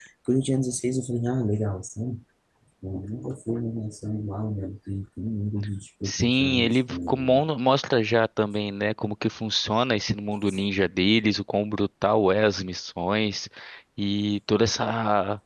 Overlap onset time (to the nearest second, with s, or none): 6 s